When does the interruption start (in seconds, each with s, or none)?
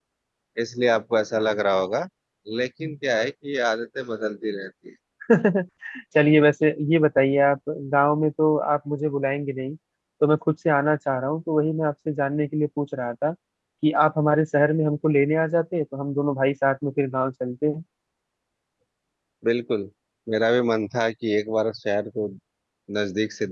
none